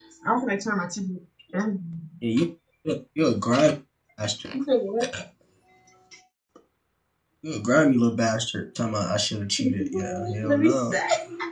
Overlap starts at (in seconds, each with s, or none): 9.6 s